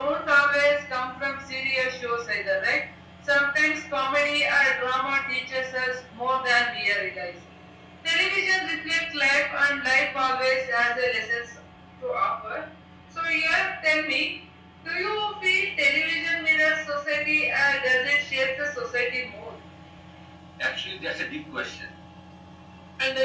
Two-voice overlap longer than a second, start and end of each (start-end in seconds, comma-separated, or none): none